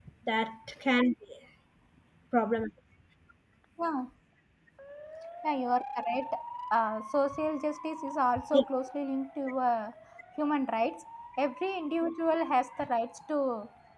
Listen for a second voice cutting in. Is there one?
No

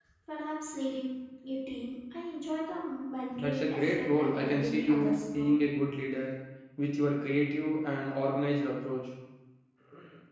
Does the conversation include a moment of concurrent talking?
Yes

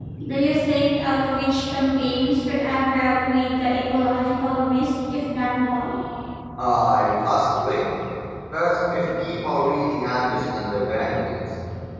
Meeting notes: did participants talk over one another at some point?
No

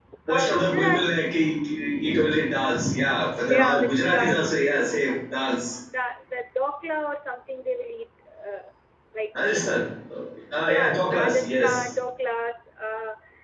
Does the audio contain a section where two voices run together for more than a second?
Yes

